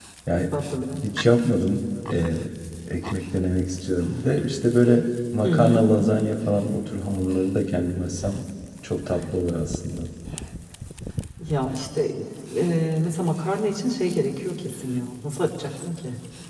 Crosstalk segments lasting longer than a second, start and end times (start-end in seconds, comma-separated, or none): none